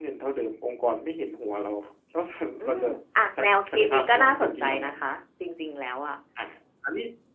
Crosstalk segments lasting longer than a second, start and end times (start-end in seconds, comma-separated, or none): 3.4-4.9